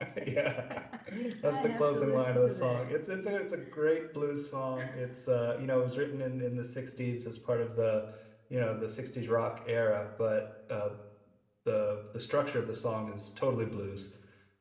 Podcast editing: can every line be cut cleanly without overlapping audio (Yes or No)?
No